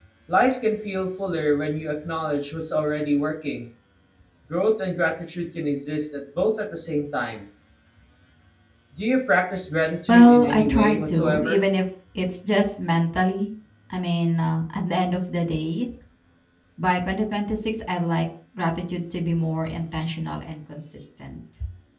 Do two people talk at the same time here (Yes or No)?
Yes